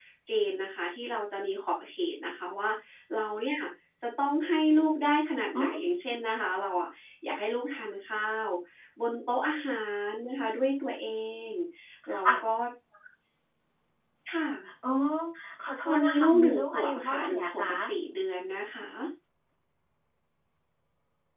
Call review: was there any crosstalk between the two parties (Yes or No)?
Yes